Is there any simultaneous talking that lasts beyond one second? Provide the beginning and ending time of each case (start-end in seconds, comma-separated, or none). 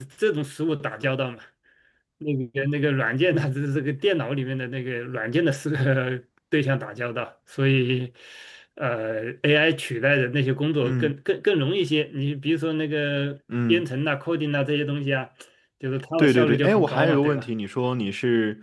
16.2-17.4